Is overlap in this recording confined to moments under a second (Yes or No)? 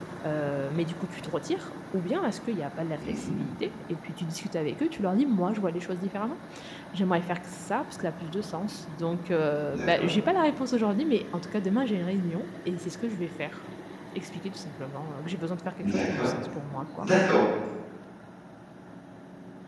Yes